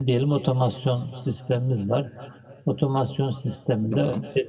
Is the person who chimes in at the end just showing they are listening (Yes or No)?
Yes